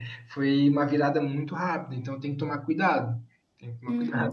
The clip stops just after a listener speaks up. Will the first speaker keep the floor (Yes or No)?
No